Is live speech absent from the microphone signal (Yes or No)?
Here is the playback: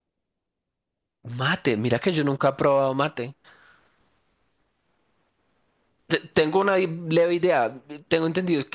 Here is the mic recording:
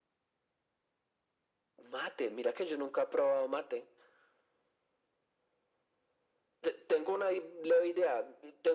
Yes